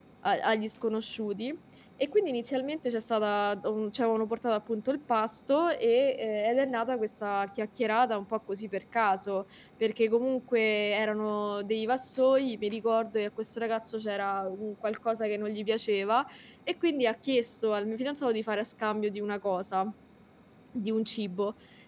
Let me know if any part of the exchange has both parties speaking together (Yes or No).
No